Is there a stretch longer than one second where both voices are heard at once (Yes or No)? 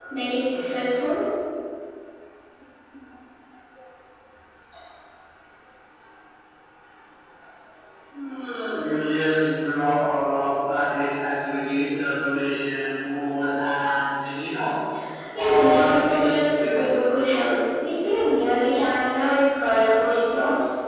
Yes